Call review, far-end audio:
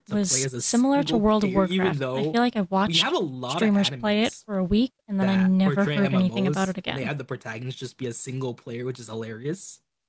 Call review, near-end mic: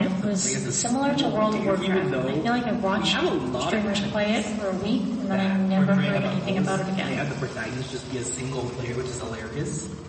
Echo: present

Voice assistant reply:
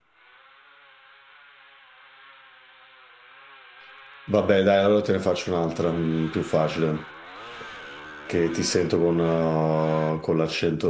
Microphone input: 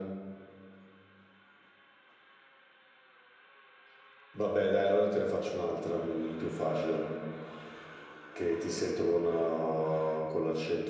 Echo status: present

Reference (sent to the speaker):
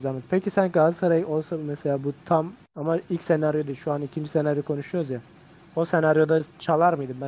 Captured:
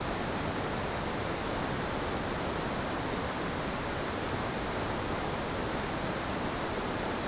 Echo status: none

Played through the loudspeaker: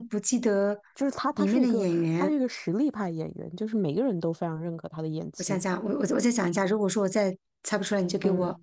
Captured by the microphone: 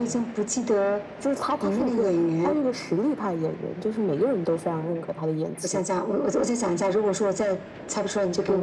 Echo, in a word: present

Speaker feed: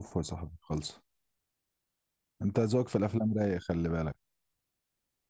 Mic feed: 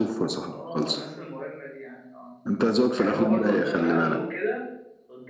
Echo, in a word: present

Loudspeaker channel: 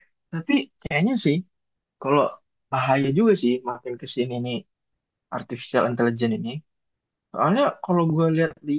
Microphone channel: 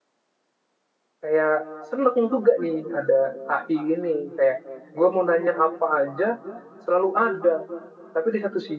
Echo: none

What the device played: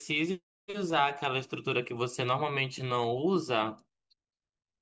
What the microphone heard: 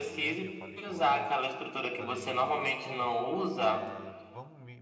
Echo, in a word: present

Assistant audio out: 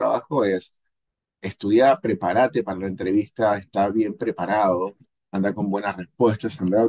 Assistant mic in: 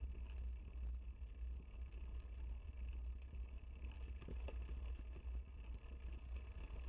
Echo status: none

